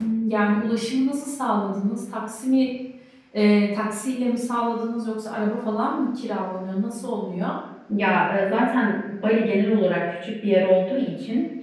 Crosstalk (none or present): none